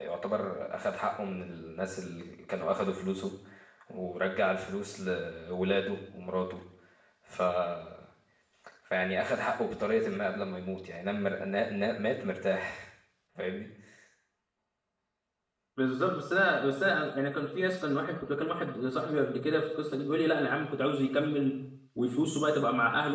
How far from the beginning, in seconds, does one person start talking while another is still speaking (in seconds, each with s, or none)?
none